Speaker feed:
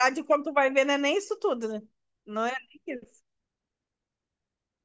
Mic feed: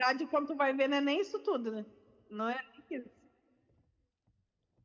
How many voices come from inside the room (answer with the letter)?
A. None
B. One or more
A